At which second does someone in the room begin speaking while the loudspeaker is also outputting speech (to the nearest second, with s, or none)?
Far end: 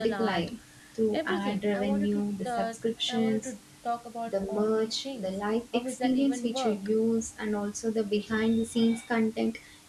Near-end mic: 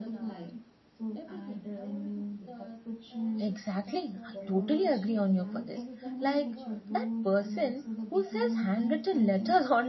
3 s